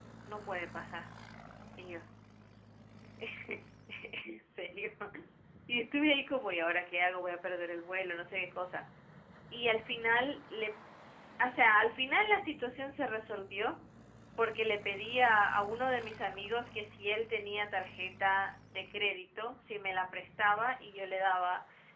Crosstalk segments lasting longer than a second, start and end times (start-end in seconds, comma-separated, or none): none